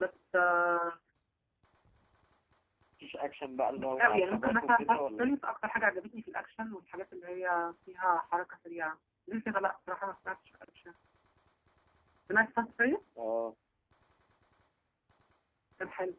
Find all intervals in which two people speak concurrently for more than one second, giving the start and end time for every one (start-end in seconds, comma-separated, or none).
3.8-5.3